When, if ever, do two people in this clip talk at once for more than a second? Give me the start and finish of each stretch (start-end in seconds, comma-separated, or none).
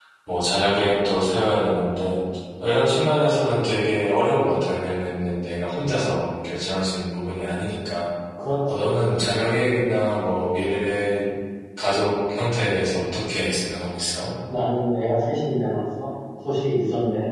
none